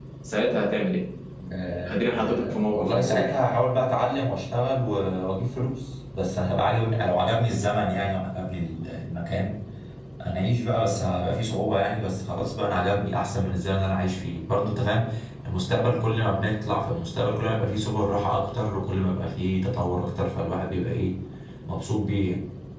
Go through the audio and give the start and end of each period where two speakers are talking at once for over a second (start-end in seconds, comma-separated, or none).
1.9-3.3